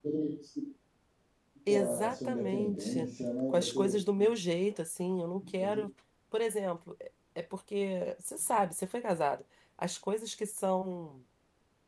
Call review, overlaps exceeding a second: present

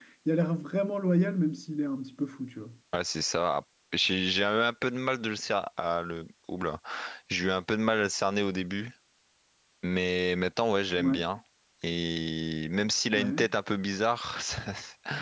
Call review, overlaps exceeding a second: none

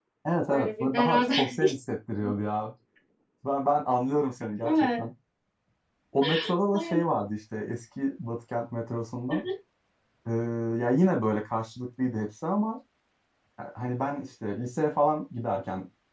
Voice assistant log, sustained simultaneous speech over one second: present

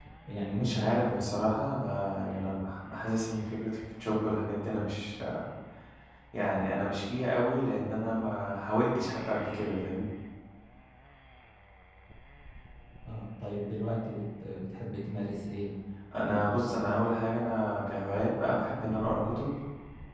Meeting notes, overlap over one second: none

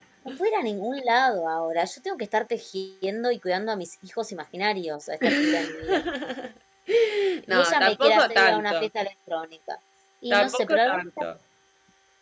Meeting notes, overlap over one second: present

